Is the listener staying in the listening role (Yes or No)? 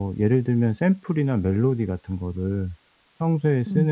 Yes